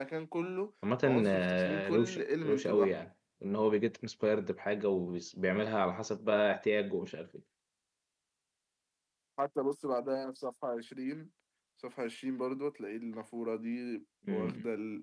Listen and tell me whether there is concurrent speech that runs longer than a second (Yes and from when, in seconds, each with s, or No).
Yes, from 1.0 s